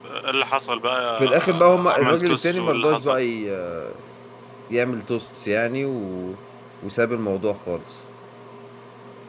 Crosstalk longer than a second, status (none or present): present